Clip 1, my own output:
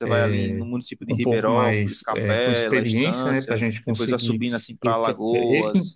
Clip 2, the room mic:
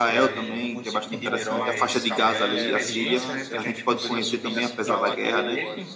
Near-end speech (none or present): present